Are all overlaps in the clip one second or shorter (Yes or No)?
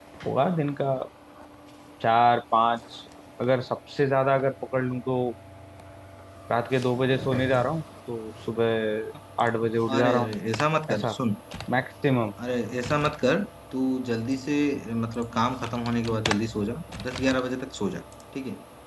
Yes